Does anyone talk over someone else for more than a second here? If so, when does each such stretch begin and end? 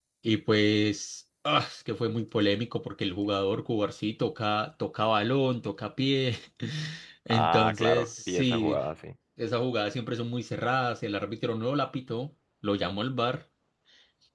7.3-8.8

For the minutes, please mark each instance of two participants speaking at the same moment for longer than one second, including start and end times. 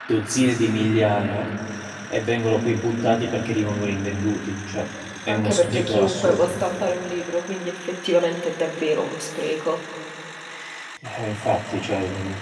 5.3-6.6

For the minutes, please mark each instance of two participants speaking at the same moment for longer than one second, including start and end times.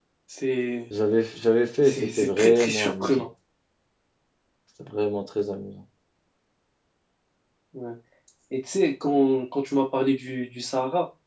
1.8-3.3

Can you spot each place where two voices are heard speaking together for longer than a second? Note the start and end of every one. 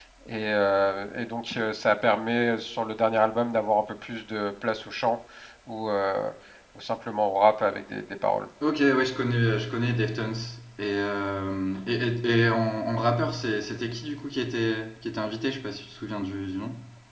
none

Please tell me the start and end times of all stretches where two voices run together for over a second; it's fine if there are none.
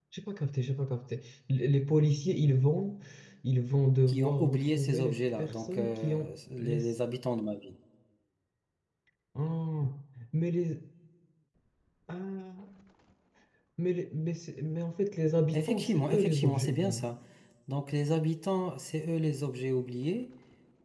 4.1-6.9, 15.5-17.1

